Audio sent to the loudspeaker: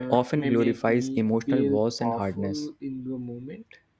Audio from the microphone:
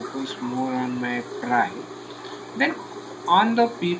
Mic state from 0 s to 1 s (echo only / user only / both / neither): user only